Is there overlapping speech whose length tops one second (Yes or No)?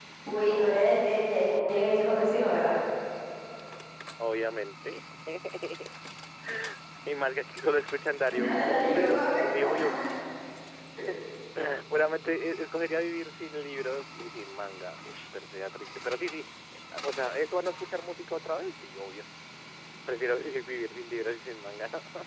Yes